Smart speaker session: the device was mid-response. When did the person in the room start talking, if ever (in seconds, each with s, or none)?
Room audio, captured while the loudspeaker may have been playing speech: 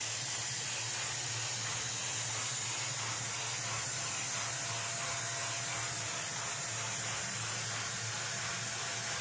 none